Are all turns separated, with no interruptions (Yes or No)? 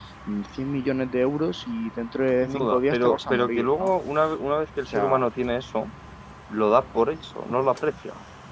No